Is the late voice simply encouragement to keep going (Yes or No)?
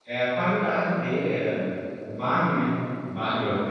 Yes